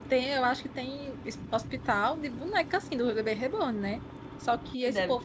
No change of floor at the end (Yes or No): Yes